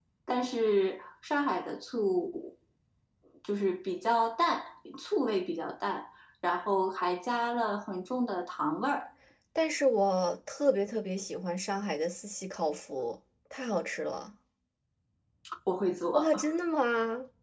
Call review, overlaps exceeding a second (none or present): none